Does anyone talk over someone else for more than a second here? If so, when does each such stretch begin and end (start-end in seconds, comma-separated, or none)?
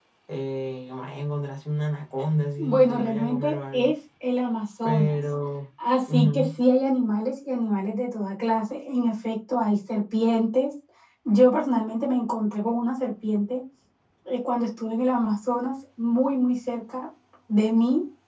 2.6-3.9